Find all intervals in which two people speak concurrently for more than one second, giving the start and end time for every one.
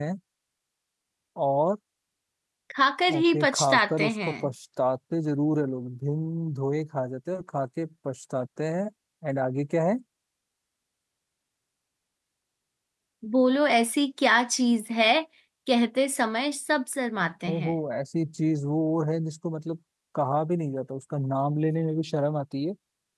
3.1-4.3

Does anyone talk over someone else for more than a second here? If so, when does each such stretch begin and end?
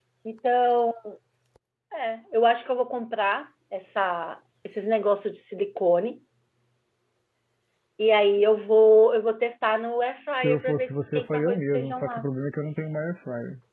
10.4-12.3

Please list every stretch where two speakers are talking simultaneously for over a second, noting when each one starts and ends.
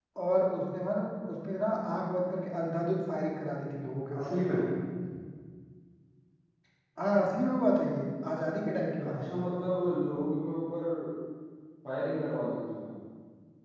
none

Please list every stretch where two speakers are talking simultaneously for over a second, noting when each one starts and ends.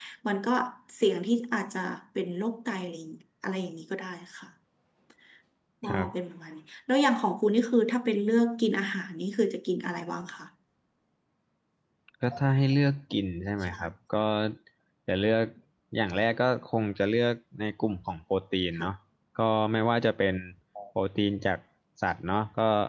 none

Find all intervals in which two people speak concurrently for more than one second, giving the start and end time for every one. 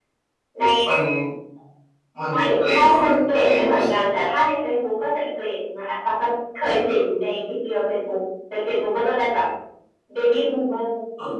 2.3-3.8

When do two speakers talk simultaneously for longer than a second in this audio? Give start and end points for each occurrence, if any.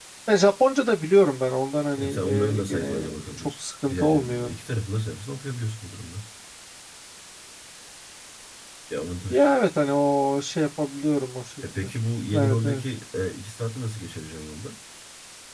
1.9-4.6

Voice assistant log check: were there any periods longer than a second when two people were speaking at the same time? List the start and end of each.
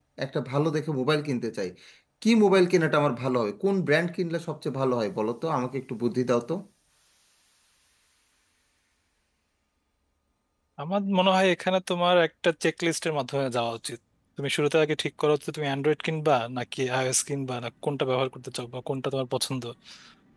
none

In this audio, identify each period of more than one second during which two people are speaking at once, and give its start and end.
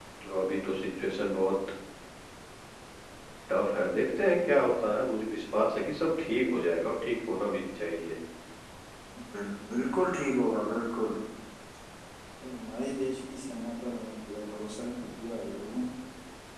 none

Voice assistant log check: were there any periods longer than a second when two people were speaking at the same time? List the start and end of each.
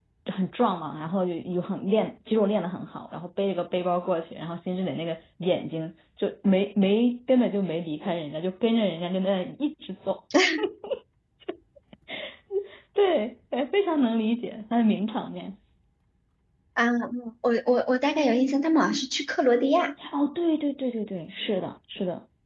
none

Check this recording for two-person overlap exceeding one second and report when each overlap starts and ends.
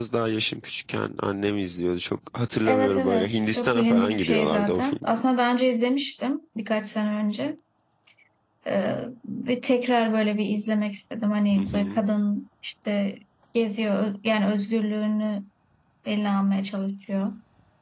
2.6-5.1

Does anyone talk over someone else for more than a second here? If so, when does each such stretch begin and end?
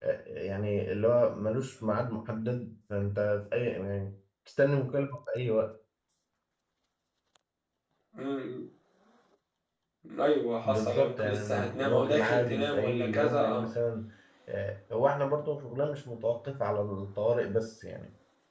10.7-13.7

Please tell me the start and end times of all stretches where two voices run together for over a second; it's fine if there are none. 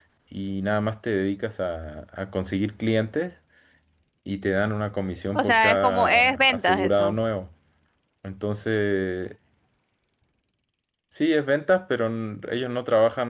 5.3-7.2

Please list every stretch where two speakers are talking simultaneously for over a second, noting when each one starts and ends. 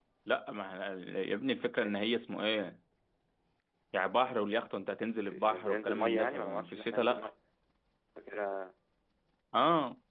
5.3-7.2

